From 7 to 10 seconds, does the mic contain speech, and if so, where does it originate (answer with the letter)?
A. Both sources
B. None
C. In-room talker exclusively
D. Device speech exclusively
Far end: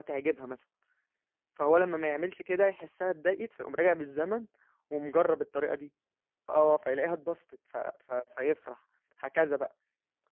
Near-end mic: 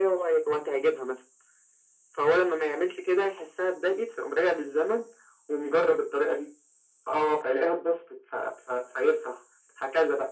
D